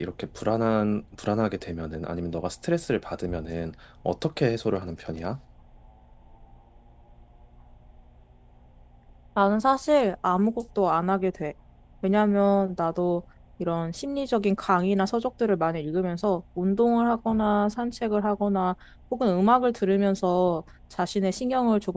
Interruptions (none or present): none